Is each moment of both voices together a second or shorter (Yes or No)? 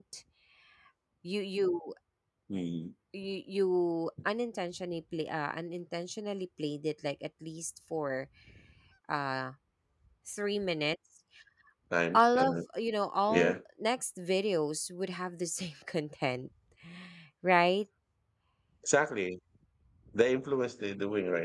Yes